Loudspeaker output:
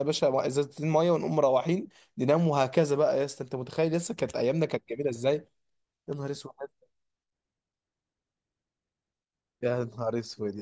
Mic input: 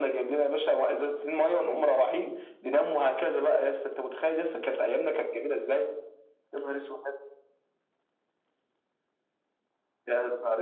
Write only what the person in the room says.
none

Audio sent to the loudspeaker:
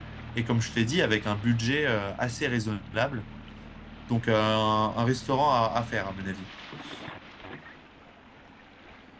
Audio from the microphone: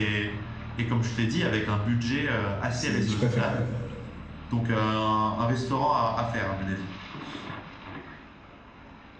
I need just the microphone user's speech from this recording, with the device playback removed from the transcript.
c'est, je préfère.

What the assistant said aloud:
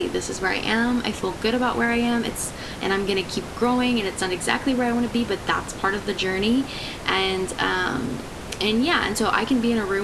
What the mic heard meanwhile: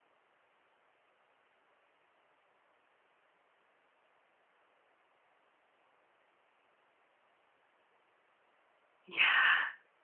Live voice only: Yeah.

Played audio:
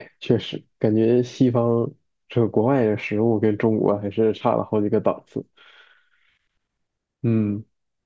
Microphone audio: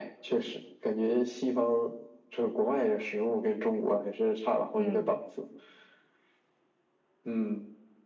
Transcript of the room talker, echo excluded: 嗯

